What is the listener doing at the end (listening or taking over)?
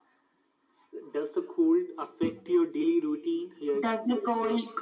taking over